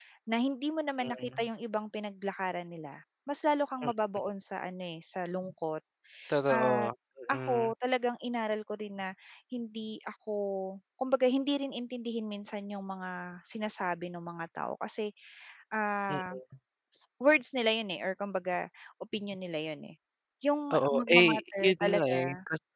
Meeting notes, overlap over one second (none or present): present